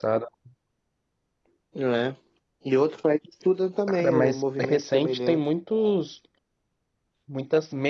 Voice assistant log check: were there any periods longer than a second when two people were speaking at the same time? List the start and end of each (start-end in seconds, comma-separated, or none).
3.9-5.4